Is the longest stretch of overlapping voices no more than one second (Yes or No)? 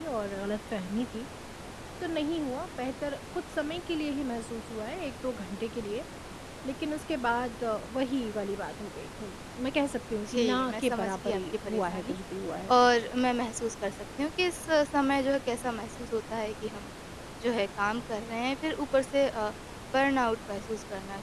No